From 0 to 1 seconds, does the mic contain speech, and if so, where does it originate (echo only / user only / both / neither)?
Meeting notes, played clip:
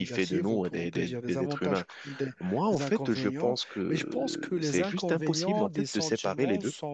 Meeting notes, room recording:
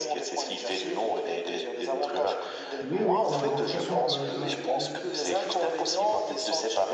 echo only